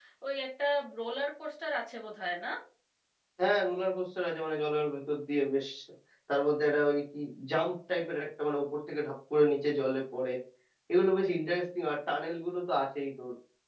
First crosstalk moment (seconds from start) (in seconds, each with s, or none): none